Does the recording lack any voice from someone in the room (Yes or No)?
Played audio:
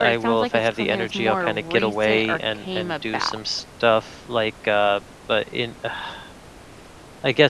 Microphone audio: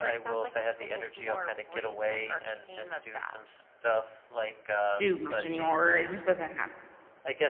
No